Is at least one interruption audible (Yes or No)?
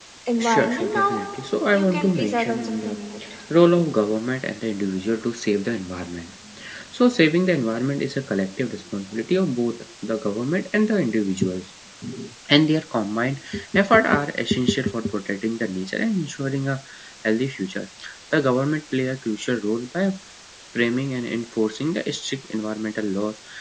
Yes